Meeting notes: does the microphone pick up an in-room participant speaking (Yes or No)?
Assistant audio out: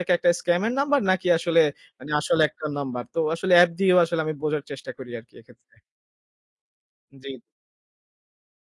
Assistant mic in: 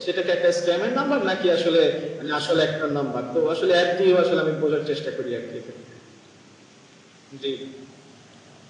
No